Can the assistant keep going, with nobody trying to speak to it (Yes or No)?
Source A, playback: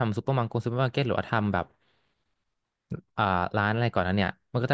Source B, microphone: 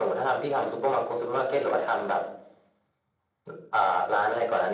Yes